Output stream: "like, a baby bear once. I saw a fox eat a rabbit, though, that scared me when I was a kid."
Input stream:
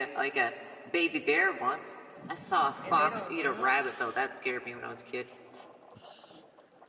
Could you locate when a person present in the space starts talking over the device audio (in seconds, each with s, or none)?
2.8 s